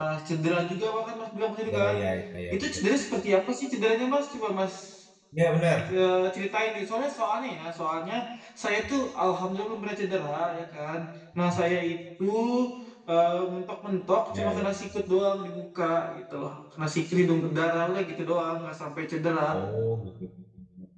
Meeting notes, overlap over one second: none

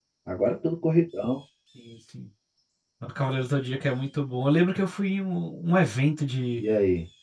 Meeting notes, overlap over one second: none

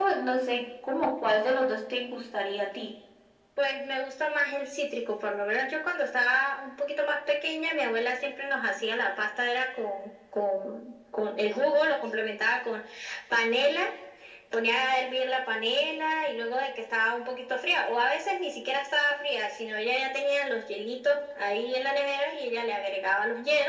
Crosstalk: none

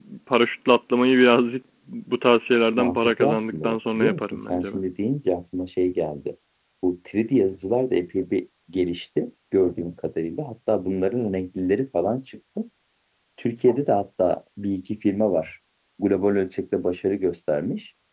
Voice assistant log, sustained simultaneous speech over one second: present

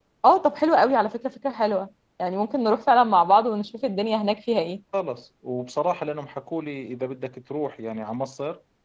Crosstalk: none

